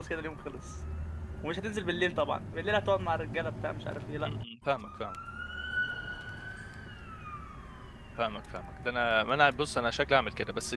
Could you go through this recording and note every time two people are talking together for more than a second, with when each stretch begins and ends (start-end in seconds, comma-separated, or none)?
none